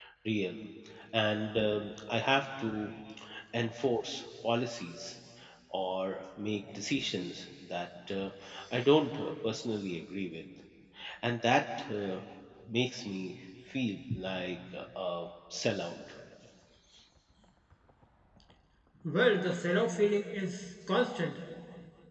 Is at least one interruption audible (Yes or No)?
No